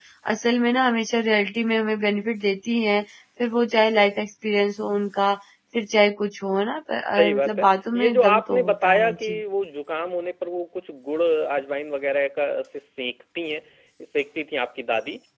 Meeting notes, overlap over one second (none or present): present